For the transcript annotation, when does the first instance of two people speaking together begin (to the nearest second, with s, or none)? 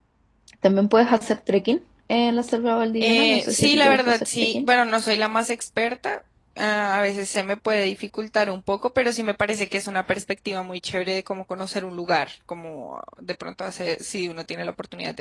3 s